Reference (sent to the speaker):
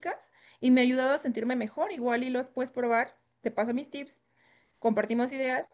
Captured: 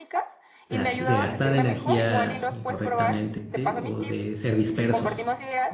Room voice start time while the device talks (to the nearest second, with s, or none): 1 s